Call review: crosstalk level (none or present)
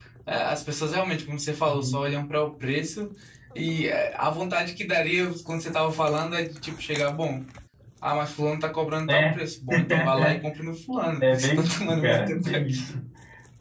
present